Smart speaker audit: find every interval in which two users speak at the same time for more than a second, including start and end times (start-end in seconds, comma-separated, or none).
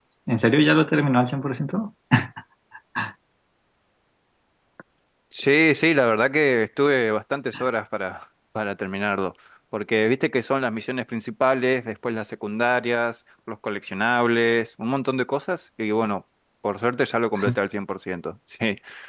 none